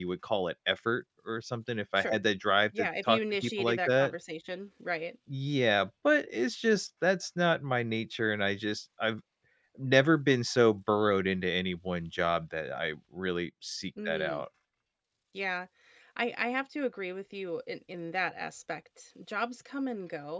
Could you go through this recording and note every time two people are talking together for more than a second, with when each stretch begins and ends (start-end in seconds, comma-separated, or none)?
2.8-4.2